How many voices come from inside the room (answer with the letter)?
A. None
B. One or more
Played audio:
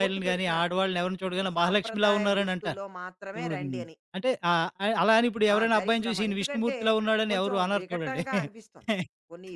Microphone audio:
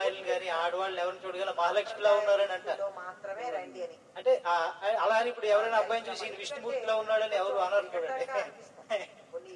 A